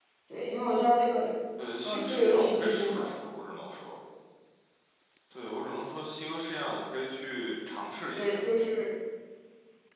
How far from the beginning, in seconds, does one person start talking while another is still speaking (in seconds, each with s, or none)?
1.8 s